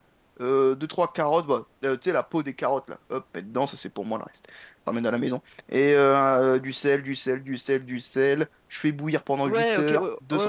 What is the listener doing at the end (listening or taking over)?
taking over